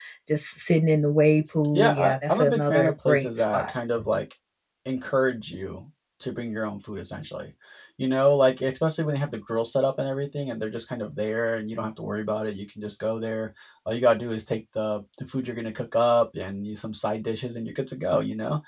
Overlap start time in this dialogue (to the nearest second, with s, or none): 2 s